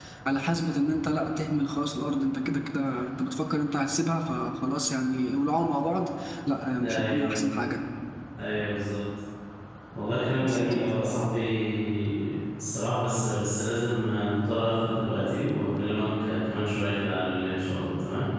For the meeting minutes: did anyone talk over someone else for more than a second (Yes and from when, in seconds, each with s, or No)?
No